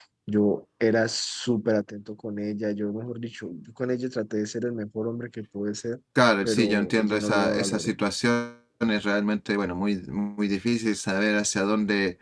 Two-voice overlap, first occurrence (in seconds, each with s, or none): 6.4 s